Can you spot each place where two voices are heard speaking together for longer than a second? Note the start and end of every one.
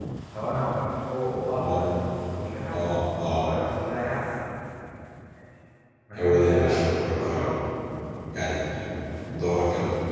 6.2-7.5

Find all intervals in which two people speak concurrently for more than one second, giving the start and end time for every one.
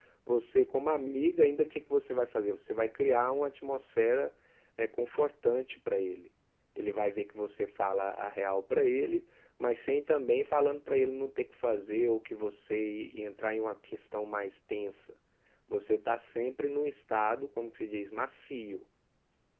none

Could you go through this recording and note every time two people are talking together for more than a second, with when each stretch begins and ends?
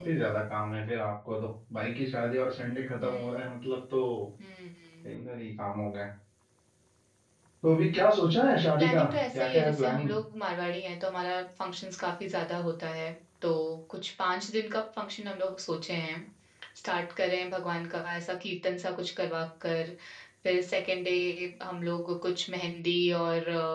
8.8-10.1

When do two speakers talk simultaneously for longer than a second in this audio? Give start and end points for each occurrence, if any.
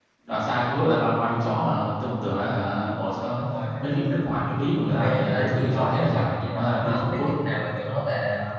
4.9-7.3

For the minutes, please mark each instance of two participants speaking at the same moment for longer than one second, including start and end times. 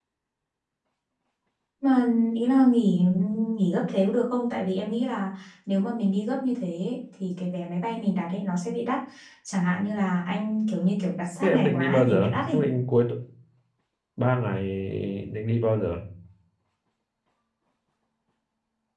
11.4-12.7

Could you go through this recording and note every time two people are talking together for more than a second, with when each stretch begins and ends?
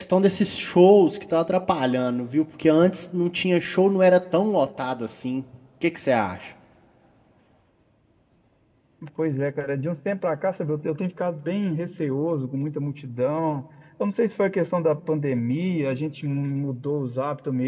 none

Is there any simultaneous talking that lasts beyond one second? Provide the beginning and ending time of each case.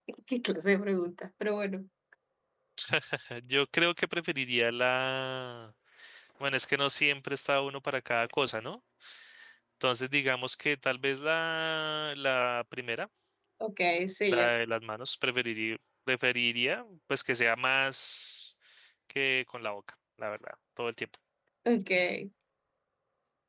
none

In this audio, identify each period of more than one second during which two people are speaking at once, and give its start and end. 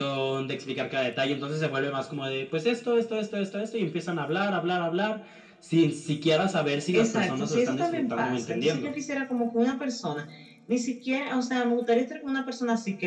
6.9-8.9

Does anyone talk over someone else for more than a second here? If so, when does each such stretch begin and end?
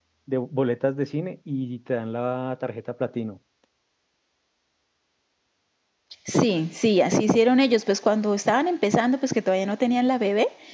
none

